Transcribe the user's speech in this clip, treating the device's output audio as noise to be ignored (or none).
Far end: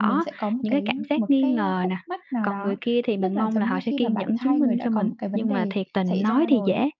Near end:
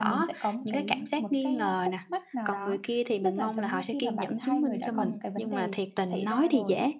Ừm.